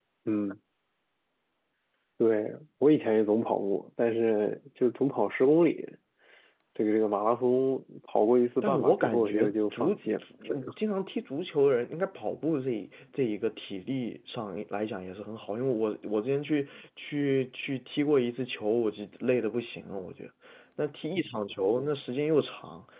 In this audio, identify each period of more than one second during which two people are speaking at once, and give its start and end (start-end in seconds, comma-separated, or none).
8.6-9.9